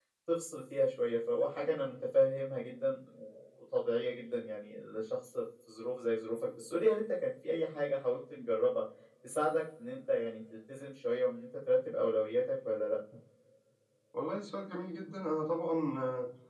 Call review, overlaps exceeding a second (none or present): none